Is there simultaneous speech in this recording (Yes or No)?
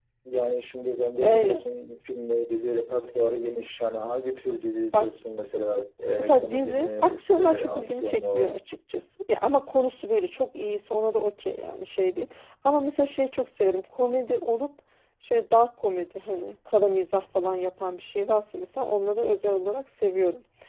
Yes